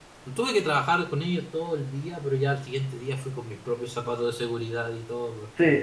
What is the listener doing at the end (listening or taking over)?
taking over